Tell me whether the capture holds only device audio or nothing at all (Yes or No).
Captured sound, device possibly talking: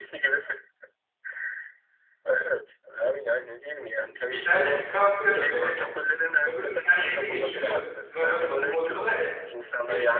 No